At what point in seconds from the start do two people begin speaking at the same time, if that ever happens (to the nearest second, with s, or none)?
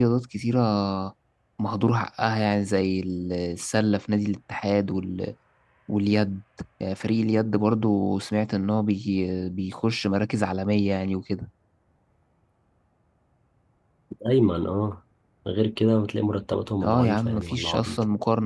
17 s